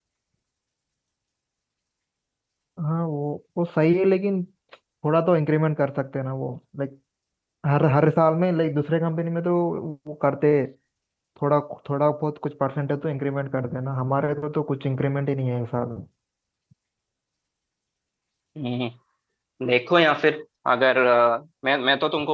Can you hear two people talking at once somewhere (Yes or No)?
No